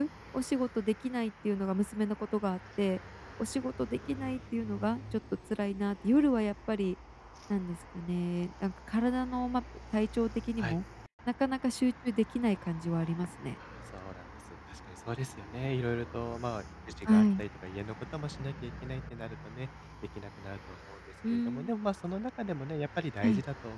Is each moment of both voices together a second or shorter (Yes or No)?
Yes